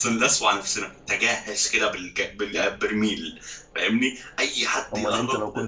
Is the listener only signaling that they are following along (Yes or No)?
No